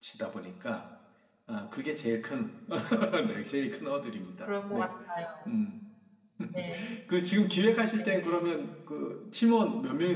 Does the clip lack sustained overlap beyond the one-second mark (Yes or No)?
Yes